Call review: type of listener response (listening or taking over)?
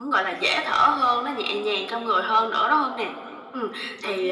listening